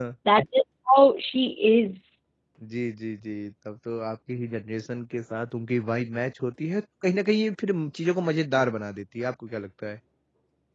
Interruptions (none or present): none